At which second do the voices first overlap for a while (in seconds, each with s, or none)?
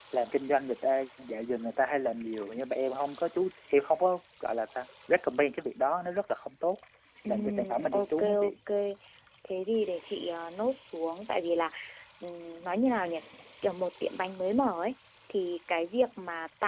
7.3 s